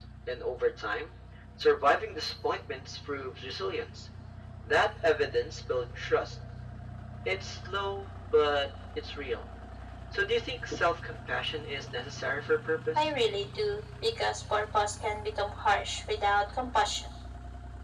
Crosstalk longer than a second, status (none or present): none